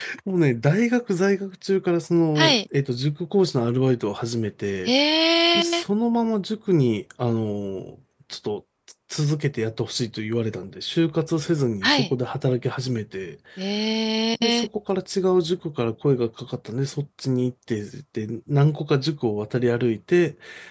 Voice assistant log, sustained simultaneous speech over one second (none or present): none